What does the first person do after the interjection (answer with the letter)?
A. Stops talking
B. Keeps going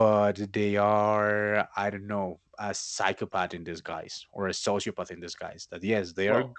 B